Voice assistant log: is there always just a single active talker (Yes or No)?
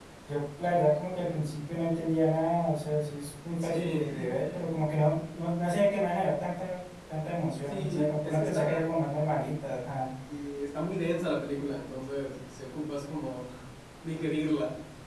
No